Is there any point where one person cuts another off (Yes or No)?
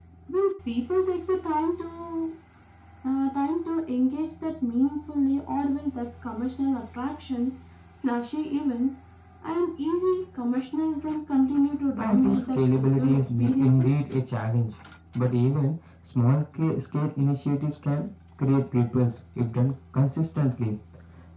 Yes